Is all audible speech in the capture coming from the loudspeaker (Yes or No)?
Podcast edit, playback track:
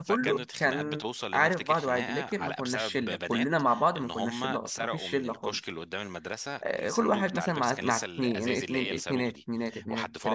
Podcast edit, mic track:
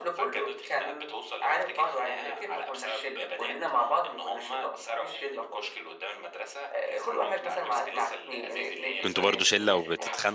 No